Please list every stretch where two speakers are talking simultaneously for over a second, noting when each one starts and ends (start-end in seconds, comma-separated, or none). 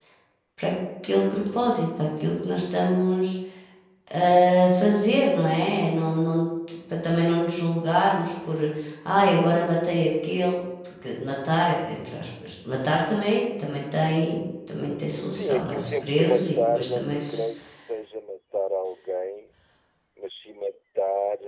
15.4-17.5